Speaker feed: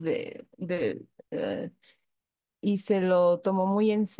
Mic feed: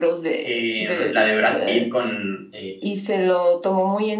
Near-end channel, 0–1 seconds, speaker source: both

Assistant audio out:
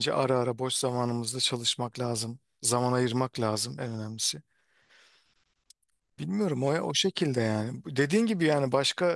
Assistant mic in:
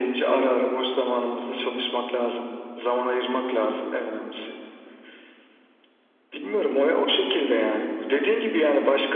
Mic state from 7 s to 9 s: echo only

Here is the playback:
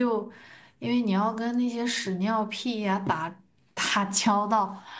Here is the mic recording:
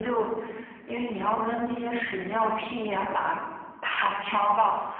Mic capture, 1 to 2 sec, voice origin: echo only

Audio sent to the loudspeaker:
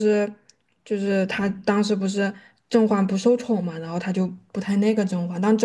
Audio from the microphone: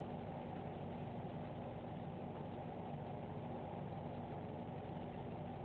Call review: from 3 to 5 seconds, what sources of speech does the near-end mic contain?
neither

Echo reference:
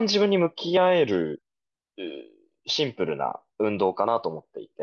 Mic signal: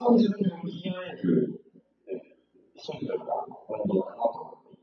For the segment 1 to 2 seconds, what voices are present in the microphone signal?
echo only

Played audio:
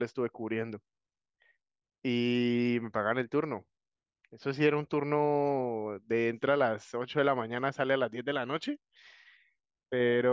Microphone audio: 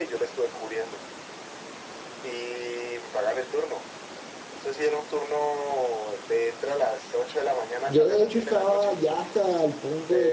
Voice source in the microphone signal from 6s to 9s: both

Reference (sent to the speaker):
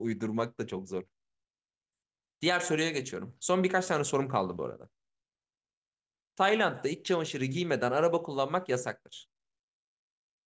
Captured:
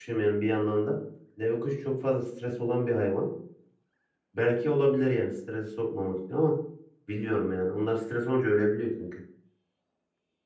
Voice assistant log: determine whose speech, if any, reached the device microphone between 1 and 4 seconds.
user only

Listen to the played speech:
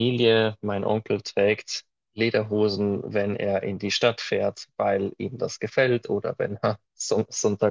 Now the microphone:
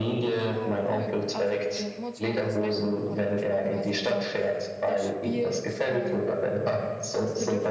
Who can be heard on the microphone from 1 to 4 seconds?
both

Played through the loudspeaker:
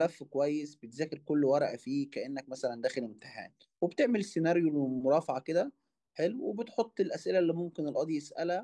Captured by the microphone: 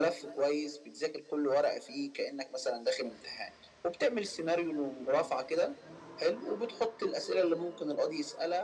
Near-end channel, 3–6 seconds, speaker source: echo only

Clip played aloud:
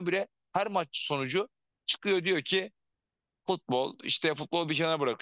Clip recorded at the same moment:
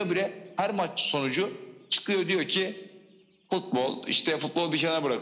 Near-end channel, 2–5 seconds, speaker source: echo only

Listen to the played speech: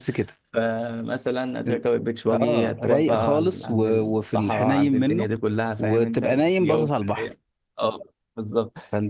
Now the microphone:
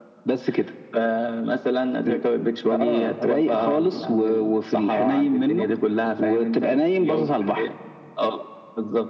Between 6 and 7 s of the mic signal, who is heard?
echo only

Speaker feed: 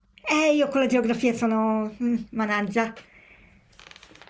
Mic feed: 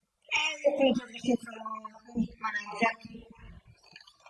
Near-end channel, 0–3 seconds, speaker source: echo only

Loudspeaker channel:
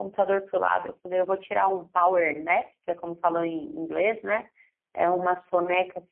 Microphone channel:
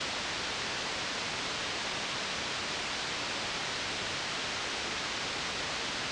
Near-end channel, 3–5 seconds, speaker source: neither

